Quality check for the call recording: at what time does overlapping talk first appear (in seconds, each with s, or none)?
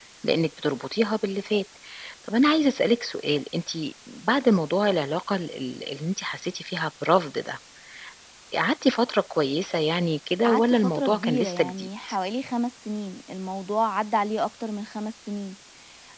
10.4 s